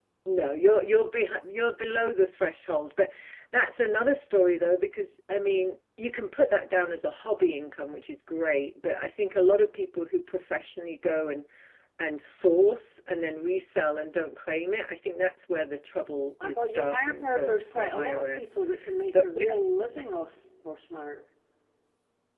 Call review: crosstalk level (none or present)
present